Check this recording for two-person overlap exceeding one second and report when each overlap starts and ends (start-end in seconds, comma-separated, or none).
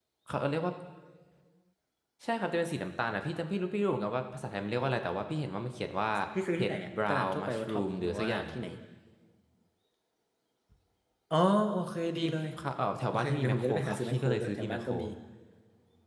6.6-8.5, 13.1-14.9